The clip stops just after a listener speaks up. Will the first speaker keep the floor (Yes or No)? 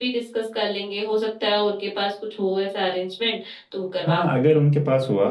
No